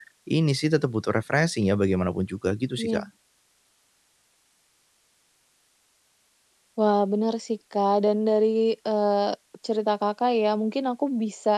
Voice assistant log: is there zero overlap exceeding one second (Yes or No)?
Yes